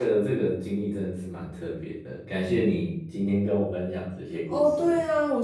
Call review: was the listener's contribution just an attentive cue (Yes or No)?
No